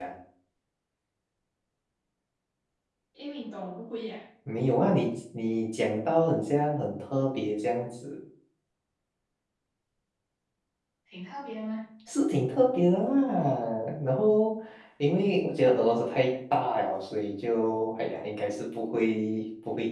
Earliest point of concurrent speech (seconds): none

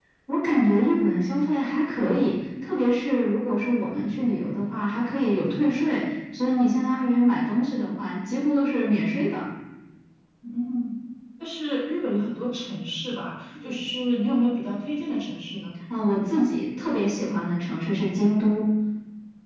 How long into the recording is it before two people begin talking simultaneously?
none

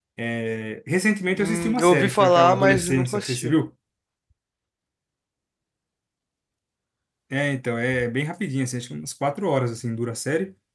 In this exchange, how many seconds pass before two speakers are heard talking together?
1.4 s

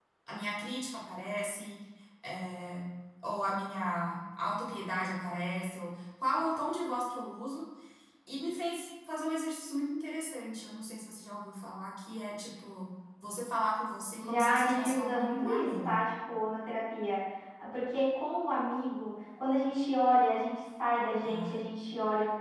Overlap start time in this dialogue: 14.2 s

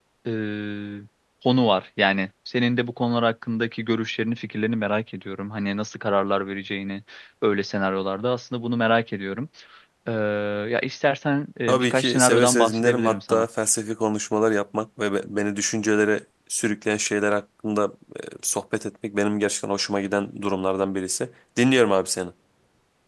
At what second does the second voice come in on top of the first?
11.7 s

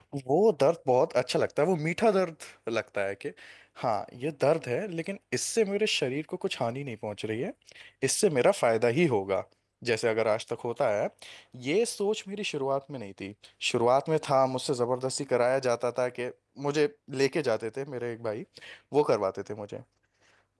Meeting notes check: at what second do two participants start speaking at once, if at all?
none

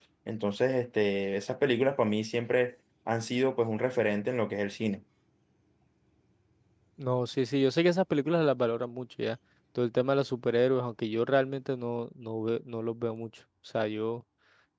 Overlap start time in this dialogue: none

